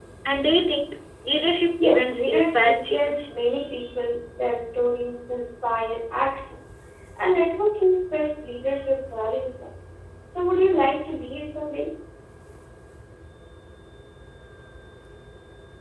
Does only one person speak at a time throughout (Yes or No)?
No